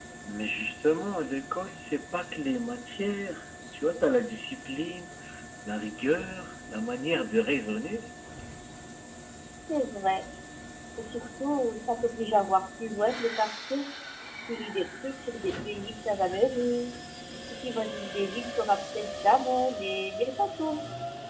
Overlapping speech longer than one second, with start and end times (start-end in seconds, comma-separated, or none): none